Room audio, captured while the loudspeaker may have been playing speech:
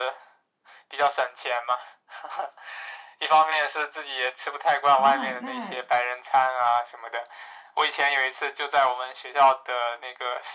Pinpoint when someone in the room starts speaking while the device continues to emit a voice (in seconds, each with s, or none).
4.9 s